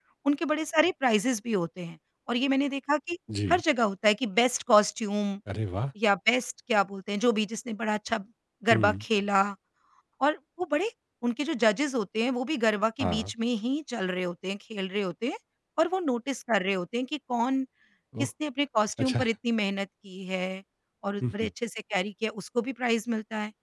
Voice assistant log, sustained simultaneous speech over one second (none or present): none